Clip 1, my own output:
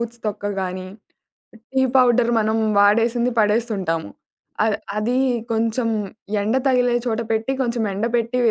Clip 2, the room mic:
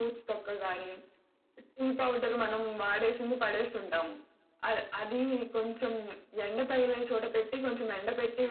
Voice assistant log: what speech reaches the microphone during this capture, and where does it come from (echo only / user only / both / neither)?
echo only